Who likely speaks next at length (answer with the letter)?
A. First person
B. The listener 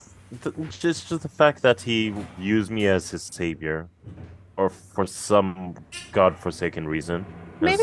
B